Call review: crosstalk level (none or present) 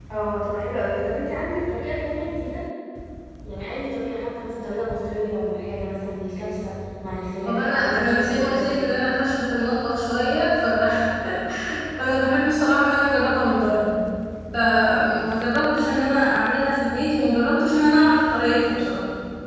present